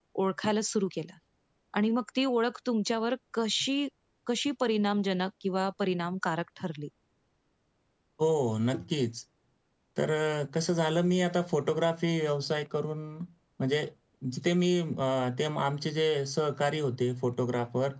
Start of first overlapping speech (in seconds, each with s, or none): none